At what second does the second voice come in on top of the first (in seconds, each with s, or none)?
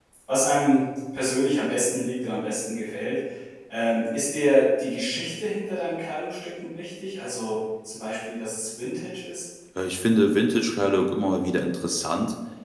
none